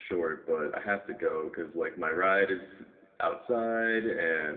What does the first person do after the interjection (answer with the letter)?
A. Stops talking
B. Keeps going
B